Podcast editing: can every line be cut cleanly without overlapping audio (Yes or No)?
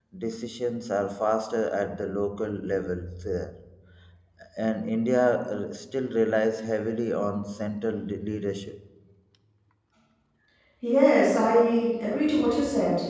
Yes